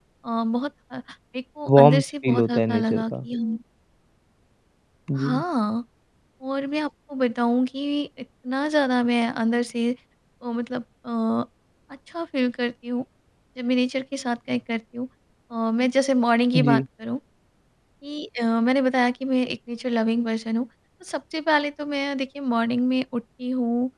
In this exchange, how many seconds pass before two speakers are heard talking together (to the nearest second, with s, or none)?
2 s